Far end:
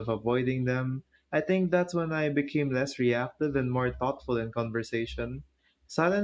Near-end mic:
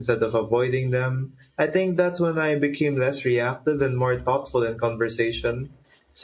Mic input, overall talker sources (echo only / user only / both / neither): echo only